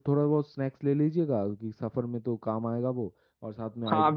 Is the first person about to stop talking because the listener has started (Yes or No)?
Yes